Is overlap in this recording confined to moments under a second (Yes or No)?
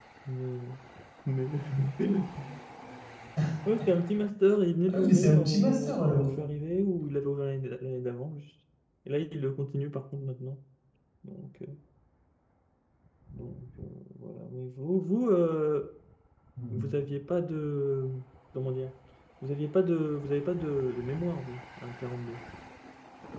No